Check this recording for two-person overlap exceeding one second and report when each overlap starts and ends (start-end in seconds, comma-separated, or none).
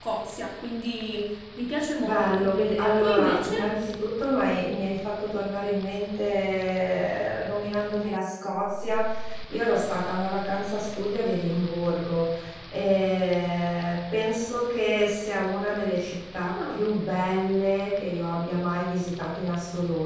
2.0-3.5